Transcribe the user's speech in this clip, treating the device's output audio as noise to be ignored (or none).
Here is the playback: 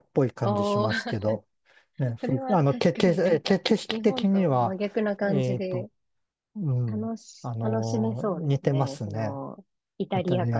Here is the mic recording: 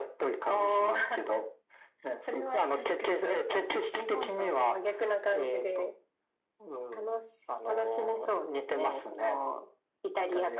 none